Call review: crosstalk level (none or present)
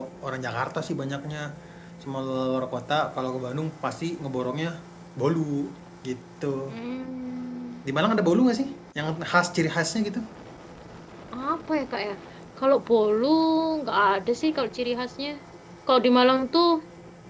none